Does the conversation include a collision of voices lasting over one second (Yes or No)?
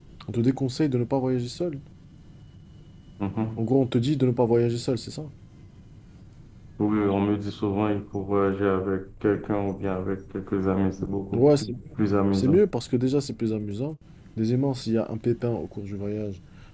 No